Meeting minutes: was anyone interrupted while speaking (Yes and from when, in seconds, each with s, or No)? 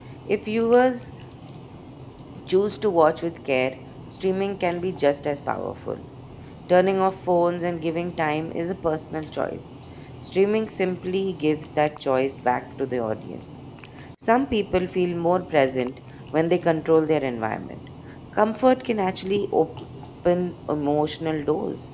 No